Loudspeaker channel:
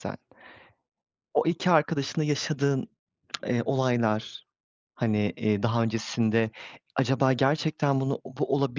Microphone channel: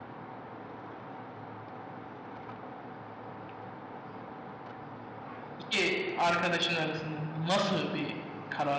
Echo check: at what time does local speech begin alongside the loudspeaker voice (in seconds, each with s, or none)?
5.6 s